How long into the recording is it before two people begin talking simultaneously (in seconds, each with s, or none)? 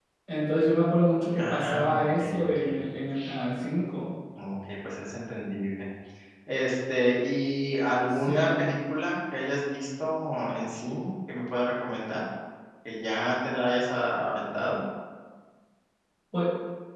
1.4 s